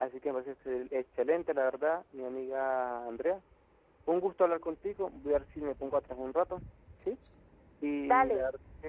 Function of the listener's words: listening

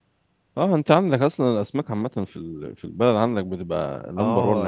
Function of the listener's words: taking over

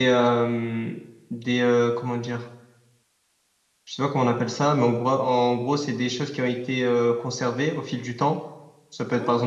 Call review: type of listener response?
listening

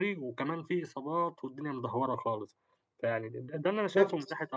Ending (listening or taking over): taking over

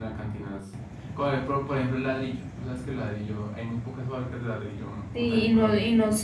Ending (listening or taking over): taking over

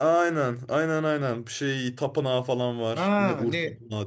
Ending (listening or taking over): taking over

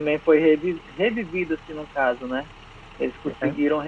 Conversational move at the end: listening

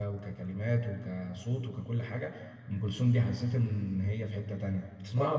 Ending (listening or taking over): taking over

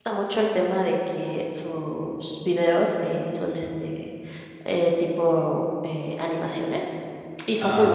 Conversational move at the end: listening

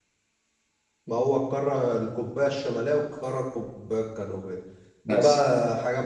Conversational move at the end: listening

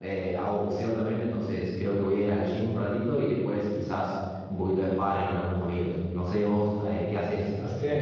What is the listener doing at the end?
taking over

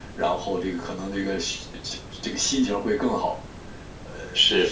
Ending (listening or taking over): listening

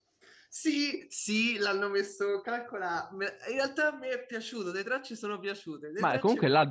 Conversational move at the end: taking over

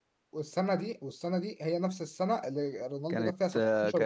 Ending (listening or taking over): taking over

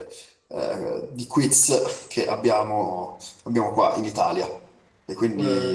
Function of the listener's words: taking over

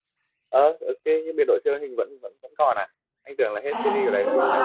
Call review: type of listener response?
taking over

